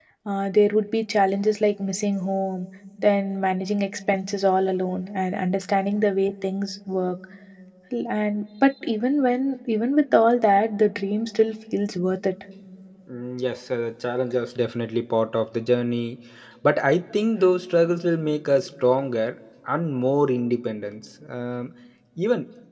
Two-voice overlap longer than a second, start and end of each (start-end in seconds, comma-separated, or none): none